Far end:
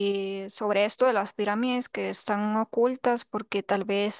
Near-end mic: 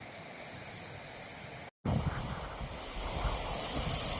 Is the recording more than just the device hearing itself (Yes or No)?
No